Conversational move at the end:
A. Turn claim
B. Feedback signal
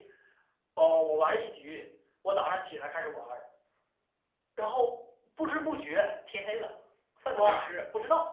A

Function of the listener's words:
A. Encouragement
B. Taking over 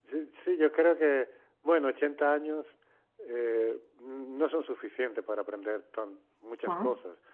A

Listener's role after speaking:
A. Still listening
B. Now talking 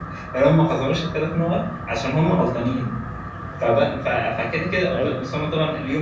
A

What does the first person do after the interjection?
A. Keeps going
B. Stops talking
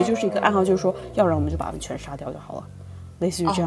B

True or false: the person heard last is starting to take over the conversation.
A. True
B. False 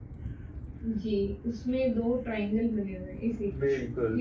A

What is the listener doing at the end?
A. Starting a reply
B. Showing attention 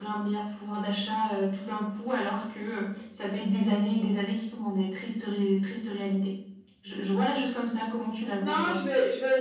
A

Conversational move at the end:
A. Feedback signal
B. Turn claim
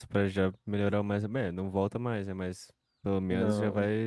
A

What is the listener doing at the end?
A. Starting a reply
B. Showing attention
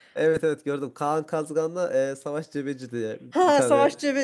A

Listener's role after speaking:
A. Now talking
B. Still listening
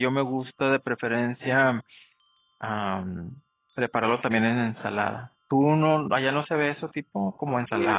A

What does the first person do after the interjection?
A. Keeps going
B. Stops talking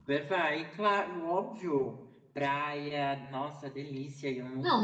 B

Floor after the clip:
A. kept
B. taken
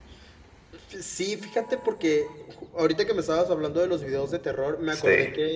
A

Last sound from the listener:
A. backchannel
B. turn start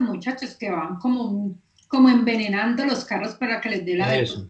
A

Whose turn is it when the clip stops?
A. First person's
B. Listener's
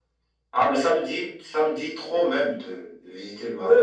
B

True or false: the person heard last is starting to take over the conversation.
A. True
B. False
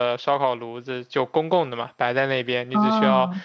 B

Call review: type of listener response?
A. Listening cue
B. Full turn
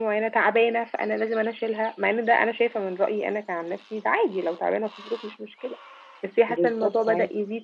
A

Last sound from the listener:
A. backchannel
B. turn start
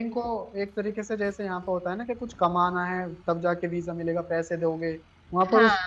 A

